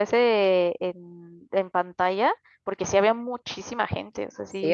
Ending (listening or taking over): taking over